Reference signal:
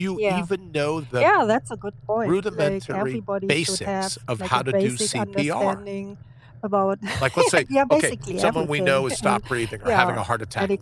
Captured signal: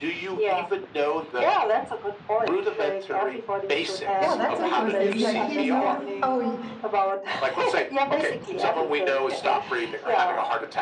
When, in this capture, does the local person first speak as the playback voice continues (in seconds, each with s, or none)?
4.2 s